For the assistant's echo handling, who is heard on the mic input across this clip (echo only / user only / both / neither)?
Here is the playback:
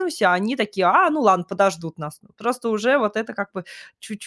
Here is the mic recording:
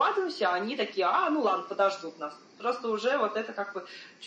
echo only